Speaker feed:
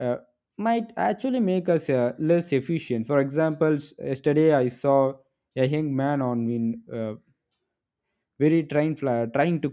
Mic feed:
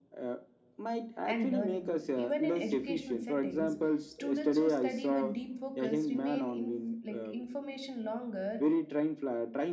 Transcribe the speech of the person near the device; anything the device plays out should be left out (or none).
and learning. Even in educational settings, students who study with deep focus remain in like information longer